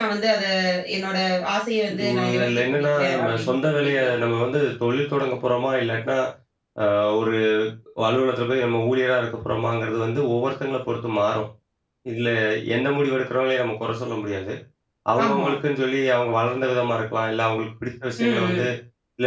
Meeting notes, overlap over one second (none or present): present